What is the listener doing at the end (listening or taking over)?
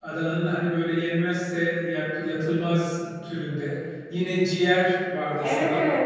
taking over